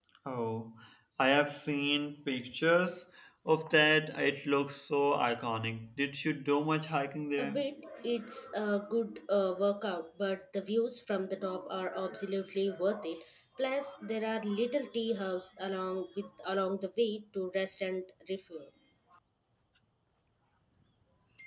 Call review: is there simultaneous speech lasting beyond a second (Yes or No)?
No